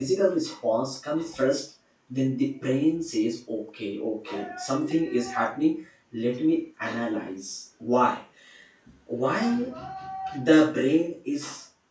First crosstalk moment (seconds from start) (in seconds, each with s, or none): none